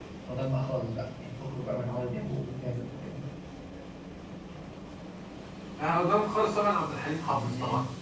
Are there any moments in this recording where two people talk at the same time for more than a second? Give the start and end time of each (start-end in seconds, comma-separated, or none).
none